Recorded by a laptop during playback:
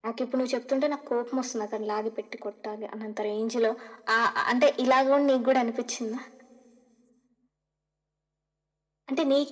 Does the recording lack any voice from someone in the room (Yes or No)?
Yes